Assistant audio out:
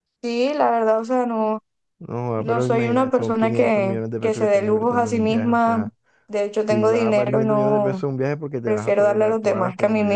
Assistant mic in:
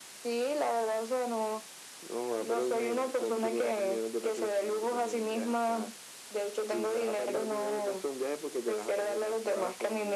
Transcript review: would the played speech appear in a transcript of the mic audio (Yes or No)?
Yes